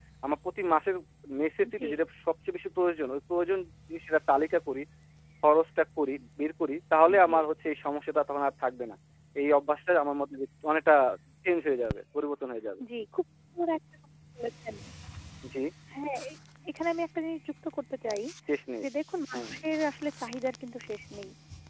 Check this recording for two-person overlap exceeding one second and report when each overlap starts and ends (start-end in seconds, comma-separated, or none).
none